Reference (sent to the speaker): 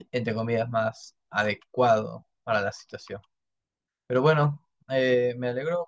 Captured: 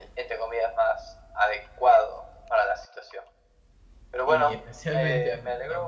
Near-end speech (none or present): present